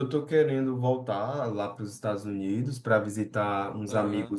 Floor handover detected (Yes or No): No